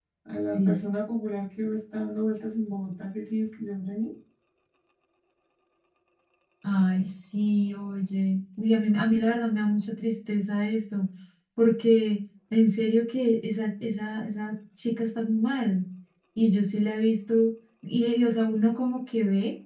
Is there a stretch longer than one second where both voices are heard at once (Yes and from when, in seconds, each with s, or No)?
No